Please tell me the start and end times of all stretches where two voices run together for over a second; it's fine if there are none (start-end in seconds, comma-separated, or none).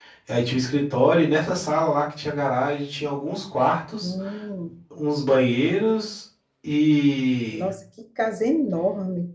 none